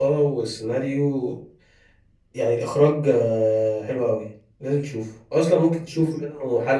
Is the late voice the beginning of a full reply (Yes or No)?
No